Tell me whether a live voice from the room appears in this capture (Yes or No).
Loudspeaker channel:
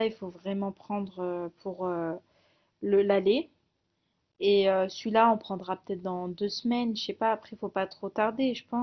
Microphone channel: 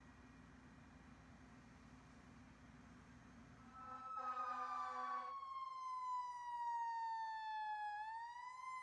No